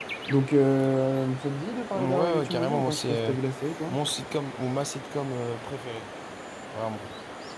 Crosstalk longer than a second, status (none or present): present